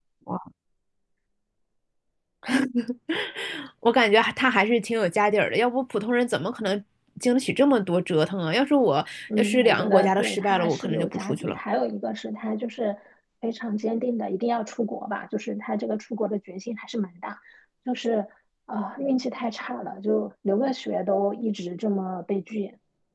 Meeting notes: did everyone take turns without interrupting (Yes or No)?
No